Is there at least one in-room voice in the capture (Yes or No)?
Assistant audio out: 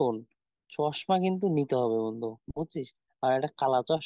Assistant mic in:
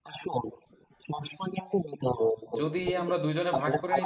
Yes